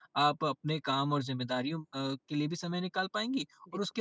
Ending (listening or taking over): listening